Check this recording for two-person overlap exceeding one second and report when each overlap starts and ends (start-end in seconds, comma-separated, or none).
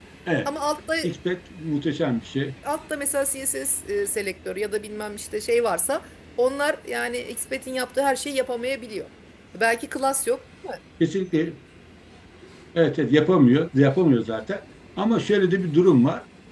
none